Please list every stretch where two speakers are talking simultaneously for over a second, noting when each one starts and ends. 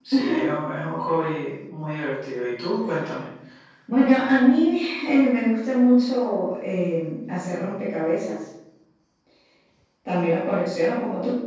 none

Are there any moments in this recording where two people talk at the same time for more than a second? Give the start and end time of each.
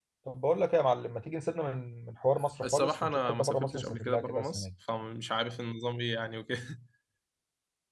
2.6-4.7

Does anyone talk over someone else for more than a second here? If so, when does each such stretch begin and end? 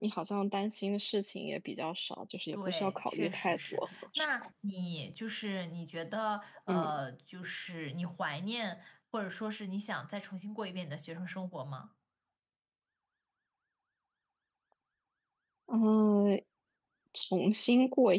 2.5-4.2

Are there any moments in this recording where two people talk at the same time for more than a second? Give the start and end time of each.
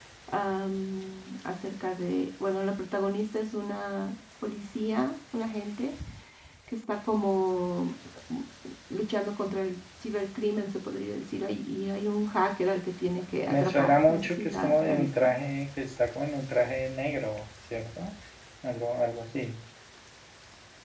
13.5-15.3

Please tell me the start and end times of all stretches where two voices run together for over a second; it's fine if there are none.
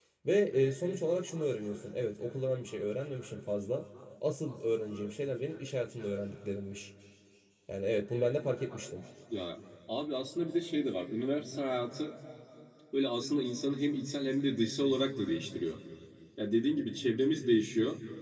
none

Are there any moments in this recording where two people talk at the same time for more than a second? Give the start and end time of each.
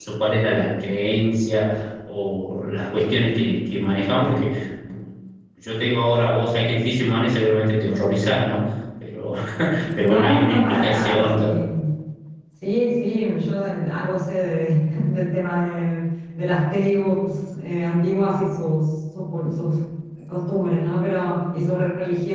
10.0-11.5

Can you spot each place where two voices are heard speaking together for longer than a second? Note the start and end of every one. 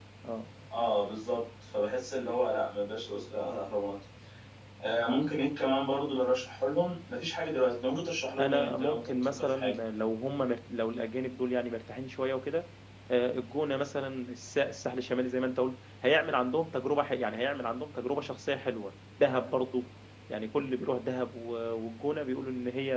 8.4-9.8

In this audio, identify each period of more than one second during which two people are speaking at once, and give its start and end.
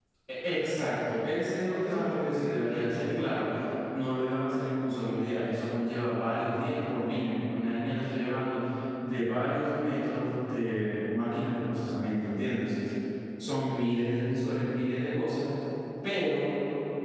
1.6-3.3

